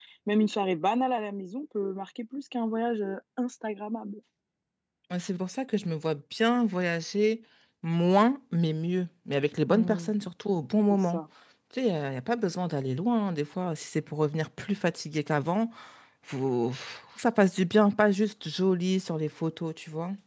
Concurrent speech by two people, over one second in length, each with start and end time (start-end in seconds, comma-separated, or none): none